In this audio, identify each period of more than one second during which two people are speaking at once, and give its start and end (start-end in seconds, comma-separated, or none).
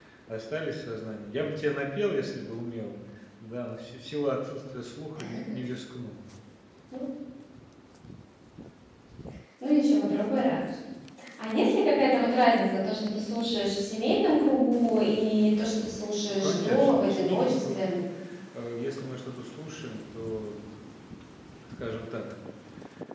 16.3-17.9